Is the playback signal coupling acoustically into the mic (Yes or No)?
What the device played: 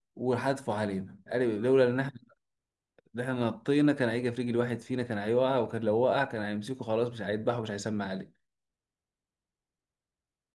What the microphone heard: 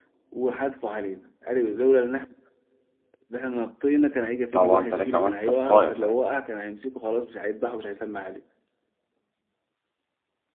Yes